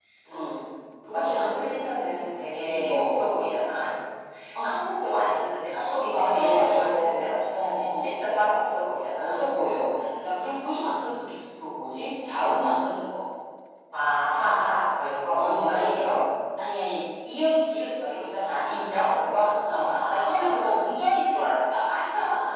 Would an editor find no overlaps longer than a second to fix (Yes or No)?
No